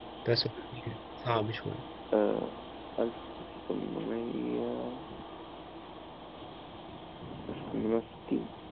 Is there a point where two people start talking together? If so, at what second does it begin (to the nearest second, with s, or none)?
none